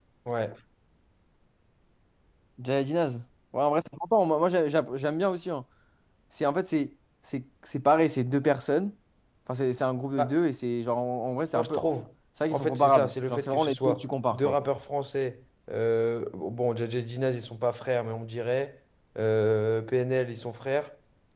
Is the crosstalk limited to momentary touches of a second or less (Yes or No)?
No